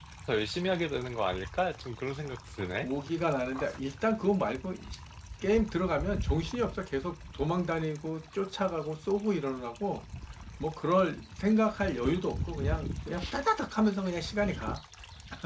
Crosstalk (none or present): none